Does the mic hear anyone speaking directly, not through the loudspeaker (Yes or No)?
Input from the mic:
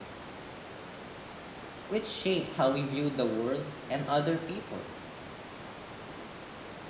Yes